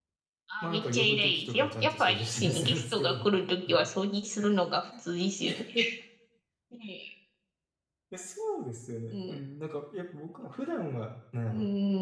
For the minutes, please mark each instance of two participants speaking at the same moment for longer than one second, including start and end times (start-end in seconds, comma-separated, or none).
0.6-3.3